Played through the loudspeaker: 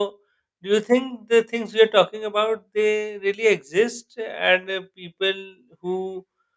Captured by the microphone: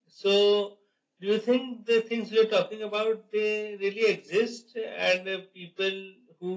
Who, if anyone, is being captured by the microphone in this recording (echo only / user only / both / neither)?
echo only